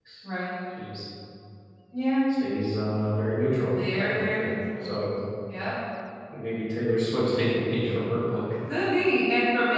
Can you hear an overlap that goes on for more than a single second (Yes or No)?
Yes